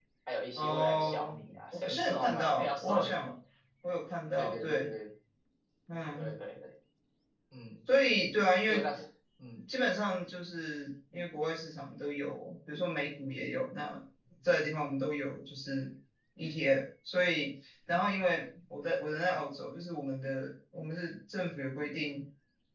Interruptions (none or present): present